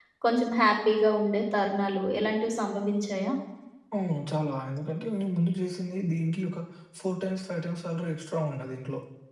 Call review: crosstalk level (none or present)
none